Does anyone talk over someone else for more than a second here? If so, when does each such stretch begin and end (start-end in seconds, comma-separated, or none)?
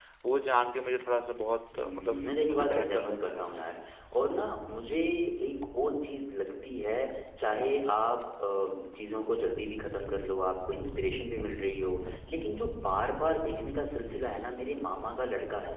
1.7-3.4